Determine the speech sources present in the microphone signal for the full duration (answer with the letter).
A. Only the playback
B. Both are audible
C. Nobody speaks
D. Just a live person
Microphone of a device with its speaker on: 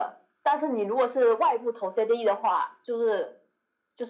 A